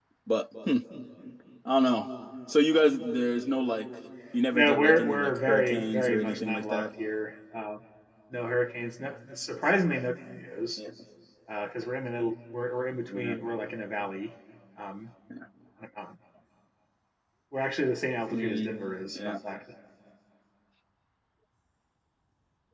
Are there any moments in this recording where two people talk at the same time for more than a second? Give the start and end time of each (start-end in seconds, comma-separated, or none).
4.5-6.9